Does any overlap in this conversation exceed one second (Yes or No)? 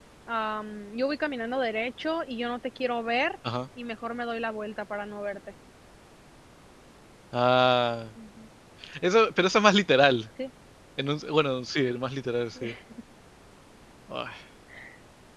No